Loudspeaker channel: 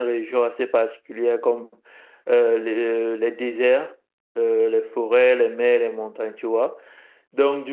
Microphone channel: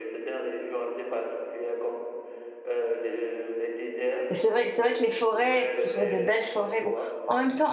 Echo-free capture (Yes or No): No